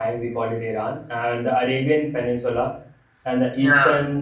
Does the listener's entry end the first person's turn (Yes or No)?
No